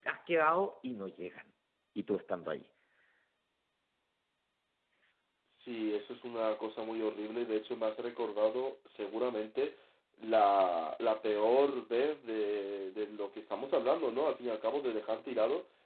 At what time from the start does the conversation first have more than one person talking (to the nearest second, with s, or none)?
none